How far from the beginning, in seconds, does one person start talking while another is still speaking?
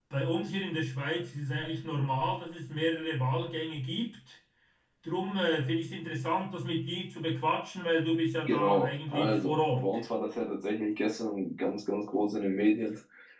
8.5 s

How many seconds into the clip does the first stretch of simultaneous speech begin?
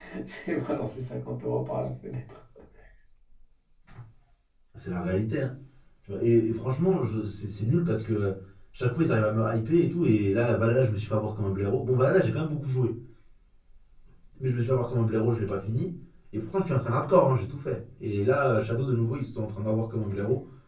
none

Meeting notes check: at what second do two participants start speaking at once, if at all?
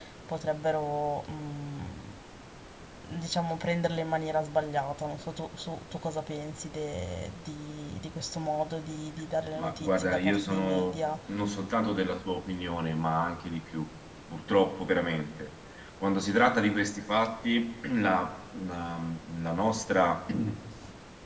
9.6 s

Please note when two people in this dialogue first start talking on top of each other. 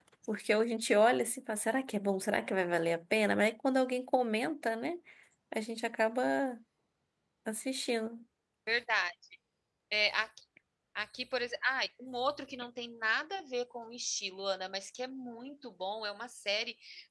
none

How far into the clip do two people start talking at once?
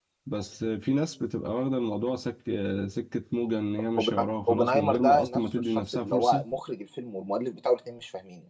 4.0 s

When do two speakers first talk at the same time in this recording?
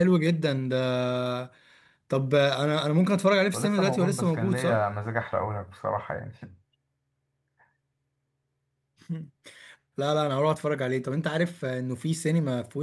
3.5 s

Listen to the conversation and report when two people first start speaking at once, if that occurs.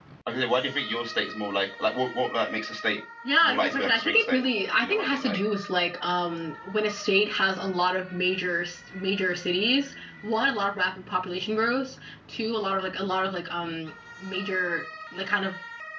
3.4 s

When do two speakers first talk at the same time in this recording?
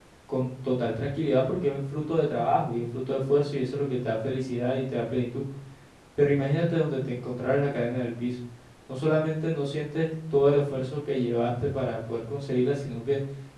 none

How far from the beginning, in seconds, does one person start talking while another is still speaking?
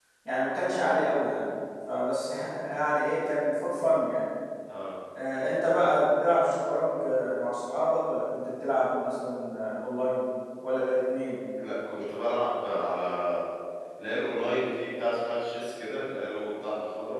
none

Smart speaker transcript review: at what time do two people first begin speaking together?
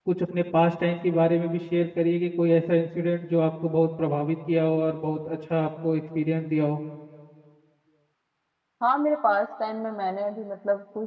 none

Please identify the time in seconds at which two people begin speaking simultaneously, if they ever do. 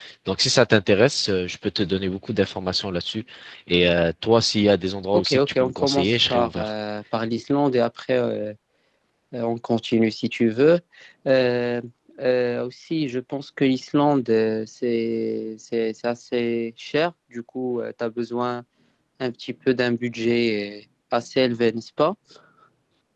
5.1 s

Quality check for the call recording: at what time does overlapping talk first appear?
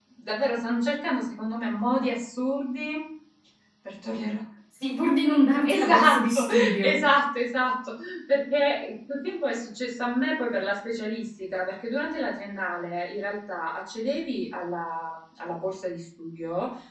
5.6 s

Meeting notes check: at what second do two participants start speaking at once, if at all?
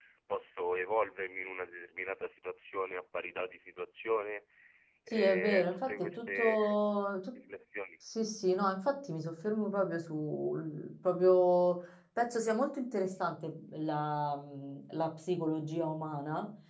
5.1 s

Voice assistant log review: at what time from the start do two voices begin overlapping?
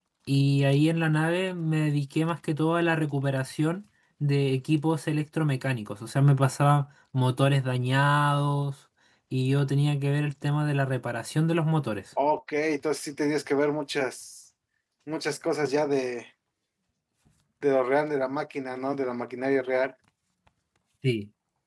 none

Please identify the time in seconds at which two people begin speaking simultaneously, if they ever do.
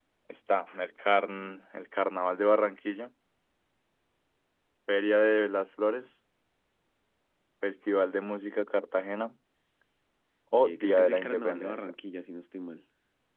10.7 s

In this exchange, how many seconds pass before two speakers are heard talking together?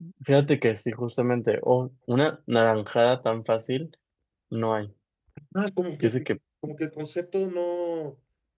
none

